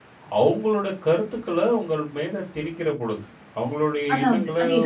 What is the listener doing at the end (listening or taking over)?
listening